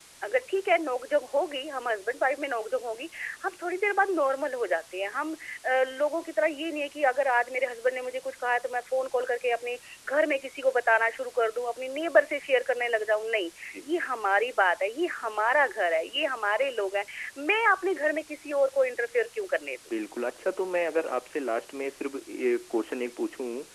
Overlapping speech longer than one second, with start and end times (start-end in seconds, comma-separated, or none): none